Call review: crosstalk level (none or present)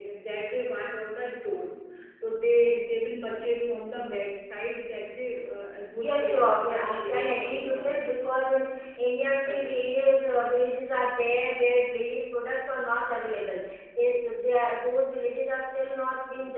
present